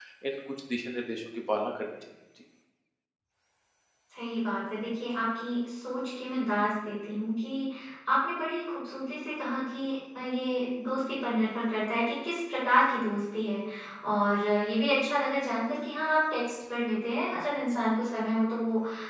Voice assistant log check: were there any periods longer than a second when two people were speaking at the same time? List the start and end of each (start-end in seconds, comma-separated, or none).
none